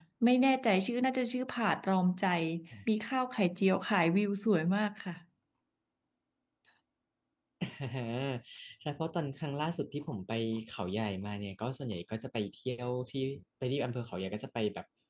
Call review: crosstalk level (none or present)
none